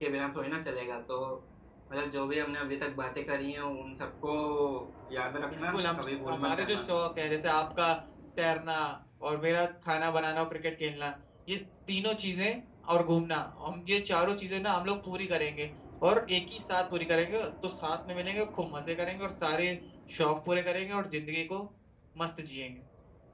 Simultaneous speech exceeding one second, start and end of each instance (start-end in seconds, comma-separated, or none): 5.5-6.8